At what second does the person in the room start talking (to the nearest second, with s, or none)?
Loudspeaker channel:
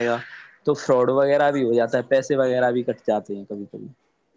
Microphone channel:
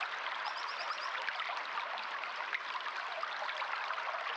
none